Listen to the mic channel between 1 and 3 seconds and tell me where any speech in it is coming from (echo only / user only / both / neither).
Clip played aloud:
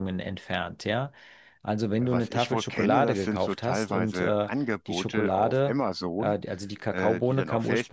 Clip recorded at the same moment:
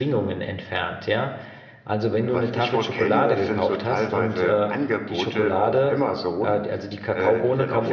echo only